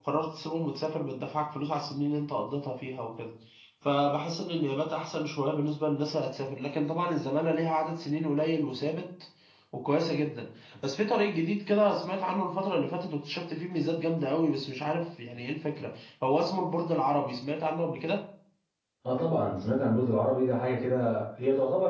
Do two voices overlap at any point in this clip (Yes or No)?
No